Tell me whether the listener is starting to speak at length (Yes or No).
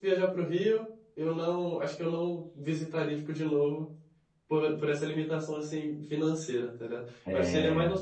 No